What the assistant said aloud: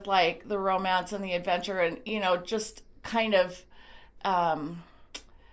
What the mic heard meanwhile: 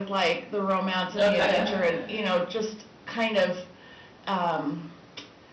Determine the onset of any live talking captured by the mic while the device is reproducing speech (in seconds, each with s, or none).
1.2 s